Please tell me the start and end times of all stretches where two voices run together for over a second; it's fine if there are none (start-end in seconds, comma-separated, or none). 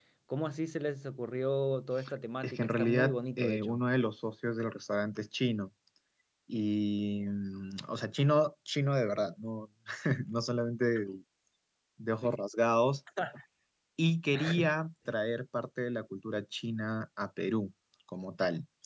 2.4-3.8